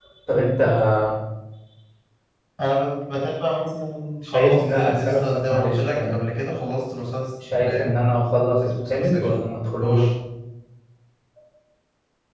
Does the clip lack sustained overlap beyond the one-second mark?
No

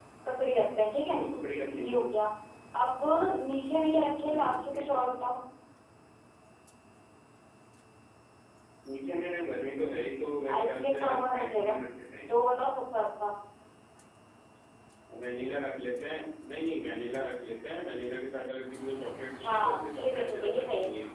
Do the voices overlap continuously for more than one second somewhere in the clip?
Yes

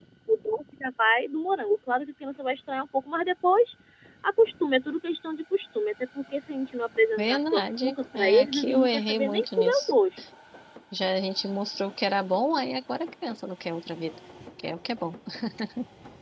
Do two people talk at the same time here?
Yes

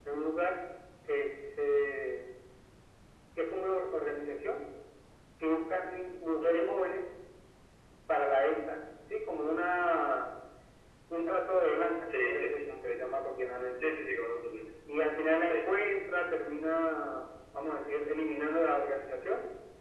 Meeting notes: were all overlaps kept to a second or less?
Yes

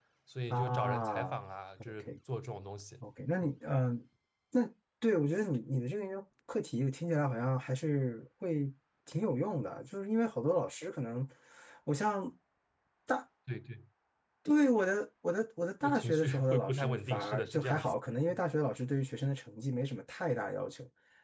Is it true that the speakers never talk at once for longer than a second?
No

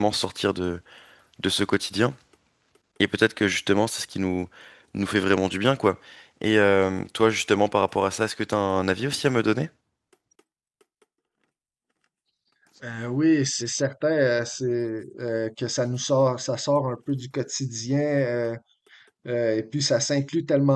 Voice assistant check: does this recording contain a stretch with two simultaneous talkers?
No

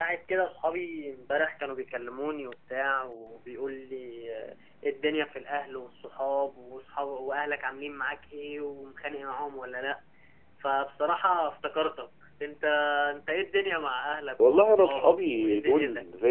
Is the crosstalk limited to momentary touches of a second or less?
No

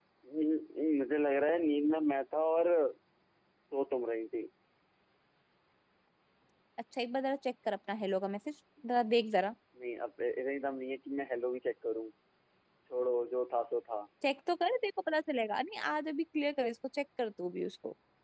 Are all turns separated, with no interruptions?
Yes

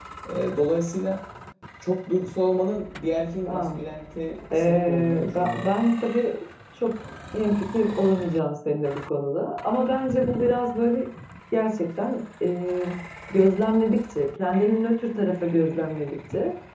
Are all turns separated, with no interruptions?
No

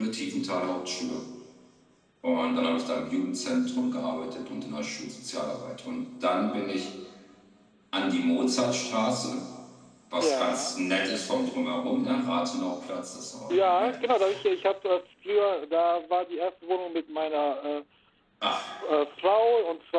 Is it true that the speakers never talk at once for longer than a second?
Yes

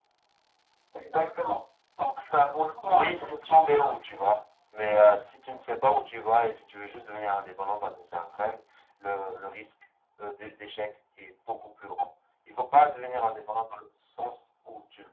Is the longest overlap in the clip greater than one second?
Yes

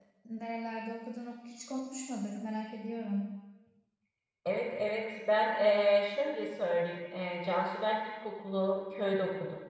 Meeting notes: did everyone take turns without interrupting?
Yes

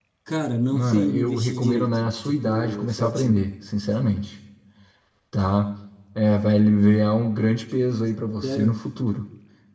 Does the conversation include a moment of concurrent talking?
Yes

